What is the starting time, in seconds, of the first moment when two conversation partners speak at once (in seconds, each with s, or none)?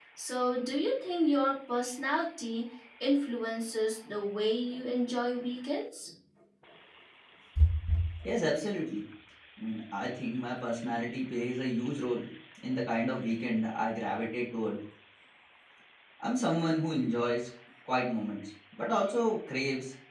none